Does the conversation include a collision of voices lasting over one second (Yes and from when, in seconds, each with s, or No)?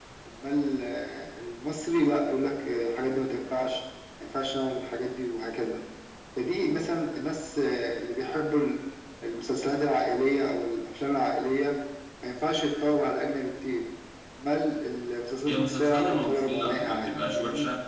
Yes, from 15.4 s